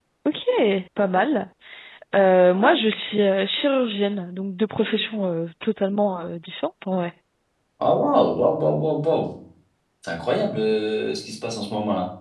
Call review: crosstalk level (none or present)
none